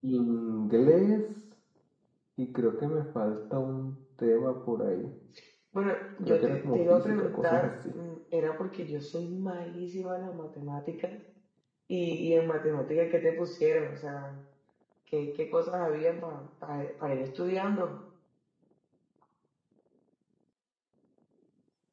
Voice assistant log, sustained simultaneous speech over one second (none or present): present